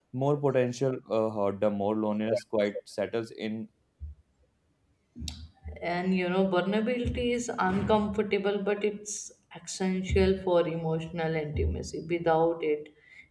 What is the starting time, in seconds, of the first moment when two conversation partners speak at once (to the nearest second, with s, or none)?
none